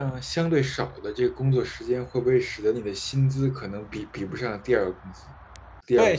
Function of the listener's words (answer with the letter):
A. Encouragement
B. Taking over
B